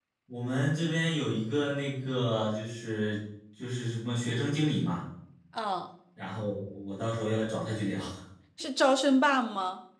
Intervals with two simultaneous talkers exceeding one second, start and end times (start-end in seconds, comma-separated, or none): none